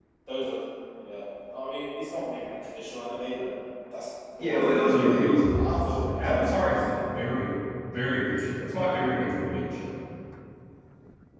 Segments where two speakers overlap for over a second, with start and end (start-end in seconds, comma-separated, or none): 4.4-6.8